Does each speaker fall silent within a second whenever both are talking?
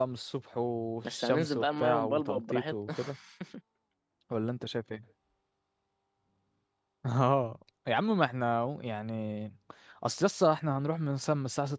No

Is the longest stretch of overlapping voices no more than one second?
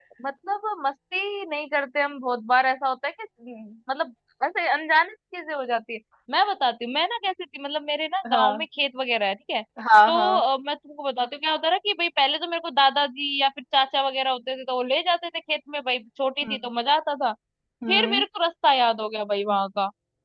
Yes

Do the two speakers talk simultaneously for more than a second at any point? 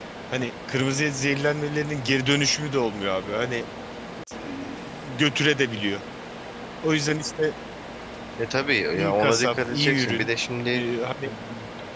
Yes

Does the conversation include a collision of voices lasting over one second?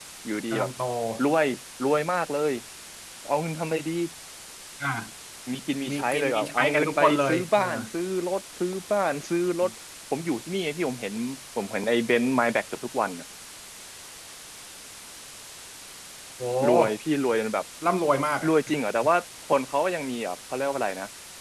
Yes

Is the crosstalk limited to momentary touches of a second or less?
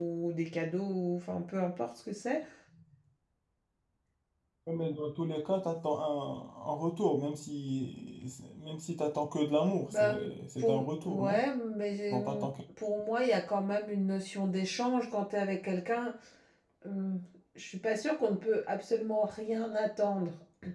No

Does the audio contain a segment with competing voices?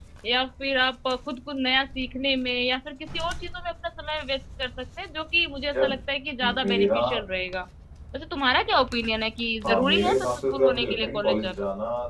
Yes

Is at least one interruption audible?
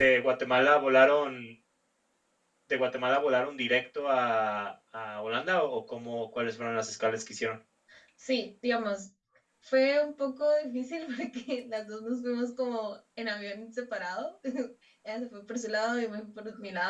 No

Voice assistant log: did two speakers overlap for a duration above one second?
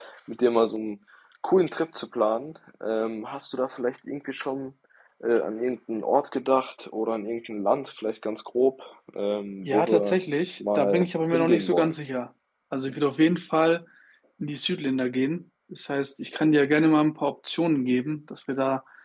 Yes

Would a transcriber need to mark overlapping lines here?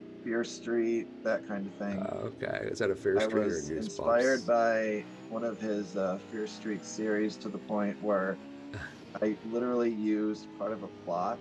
Yes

